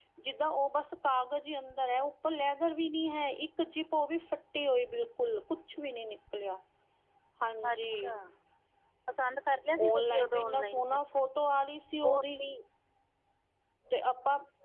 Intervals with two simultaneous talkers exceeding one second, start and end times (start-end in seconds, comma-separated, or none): 9.8-11.0